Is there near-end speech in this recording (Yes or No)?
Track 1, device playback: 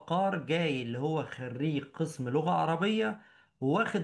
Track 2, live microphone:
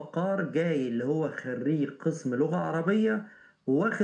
No